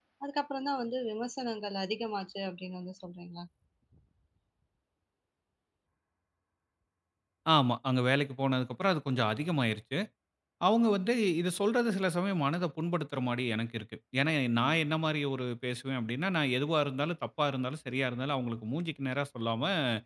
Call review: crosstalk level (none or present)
none